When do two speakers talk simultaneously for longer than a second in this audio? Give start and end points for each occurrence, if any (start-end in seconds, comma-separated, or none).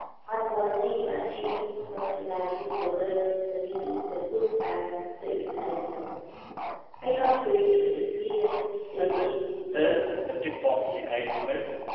9.0-10.2